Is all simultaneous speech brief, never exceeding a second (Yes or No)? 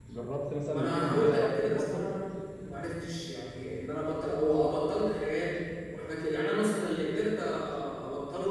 No